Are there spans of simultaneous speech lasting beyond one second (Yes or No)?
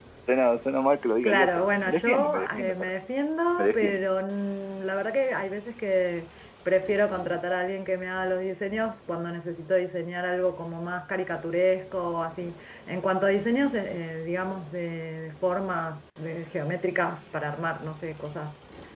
Yes